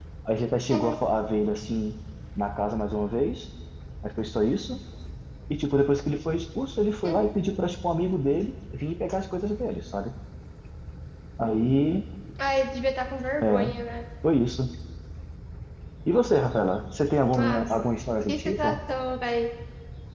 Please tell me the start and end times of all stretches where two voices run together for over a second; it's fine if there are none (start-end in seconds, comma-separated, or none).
none